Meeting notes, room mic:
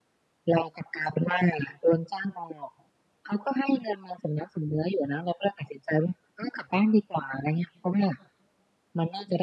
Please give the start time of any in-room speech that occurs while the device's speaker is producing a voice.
none

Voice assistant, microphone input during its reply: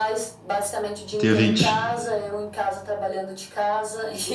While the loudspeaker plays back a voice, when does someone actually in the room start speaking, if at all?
1.1 s

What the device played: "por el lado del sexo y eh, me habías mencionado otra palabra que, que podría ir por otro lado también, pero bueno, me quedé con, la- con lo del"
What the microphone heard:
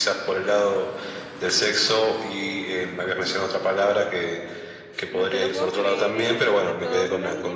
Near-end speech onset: 5.1 s

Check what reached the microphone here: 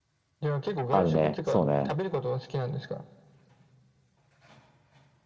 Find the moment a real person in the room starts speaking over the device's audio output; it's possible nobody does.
0.9 s

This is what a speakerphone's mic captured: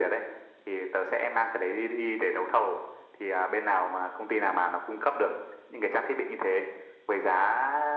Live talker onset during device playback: none

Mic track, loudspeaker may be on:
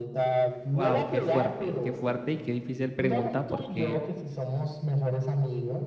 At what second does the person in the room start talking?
0.7 s

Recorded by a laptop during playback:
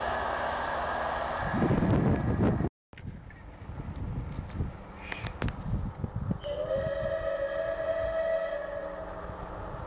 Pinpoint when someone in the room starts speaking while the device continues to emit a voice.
none

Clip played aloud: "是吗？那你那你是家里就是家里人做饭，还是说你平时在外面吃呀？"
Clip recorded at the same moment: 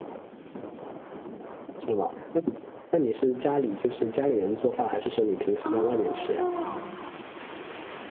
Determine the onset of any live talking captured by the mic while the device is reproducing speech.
5.6 s

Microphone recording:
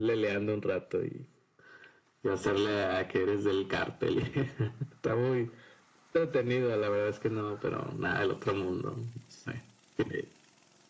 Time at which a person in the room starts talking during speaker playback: none

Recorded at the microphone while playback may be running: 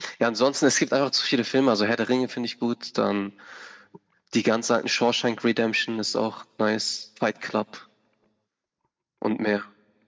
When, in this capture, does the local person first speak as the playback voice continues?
none

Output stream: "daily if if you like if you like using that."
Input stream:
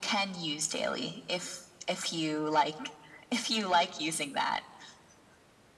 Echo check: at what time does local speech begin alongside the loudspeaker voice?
none

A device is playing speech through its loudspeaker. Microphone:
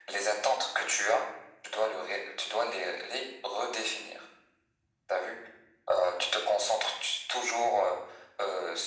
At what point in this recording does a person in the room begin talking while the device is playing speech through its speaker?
none

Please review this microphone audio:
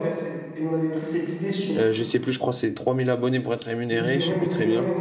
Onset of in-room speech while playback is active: 1.7 s

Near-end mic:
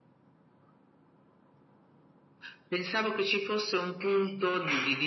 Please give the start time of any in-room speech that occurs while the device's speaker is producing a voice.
none

